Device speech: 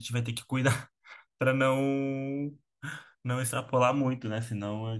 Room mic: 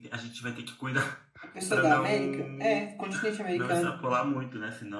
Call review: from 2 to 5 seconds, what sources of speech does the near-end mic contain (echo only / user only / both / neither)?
both